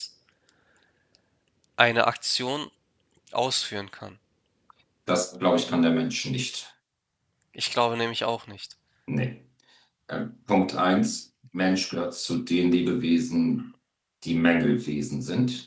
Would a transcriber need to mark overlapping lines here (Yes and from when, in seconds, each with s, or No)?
No